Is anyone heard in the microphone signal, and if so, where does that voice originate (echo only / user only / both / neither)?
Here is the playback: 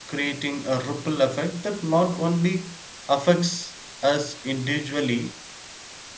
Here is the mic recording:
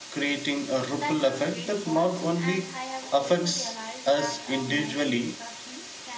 both